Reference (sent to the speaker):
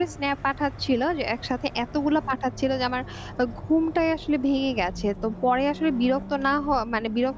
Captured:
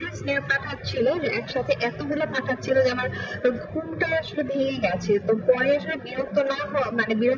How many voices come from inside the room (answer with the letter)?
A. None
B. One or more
A